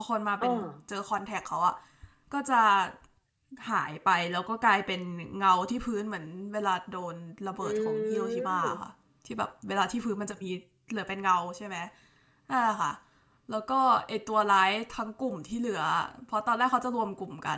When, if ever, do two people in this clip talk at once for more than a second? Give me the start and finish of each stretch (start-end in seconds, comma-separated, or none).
7.6-8.8